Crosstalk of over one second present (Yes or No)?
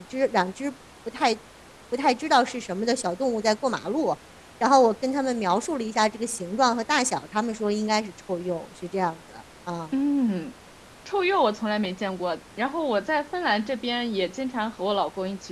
No